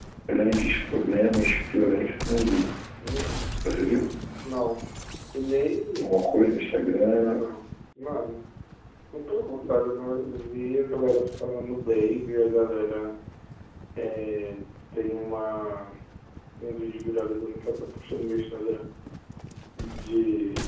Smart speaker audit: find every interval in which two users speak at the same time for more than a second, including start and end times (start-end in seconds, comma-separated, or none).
none